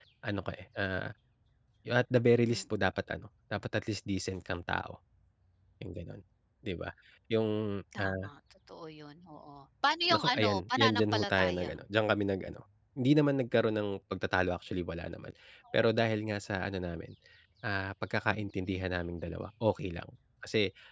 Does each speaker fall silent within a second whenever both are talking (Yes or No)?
No